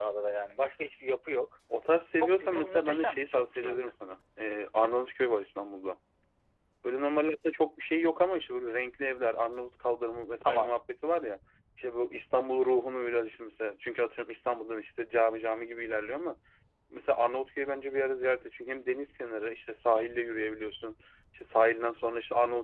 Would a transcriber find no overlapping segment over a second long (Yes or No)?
No